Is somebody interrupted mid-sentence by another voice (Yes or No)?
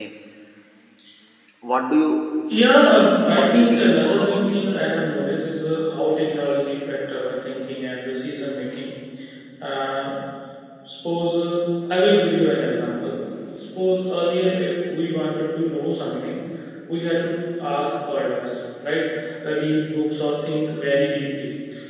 Yes